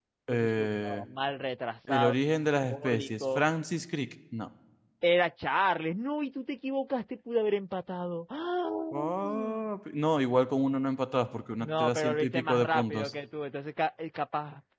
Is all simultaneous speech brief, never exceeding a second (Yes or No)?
No